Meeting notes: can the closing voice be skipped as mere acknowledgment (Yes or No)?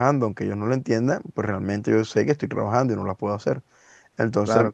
Yes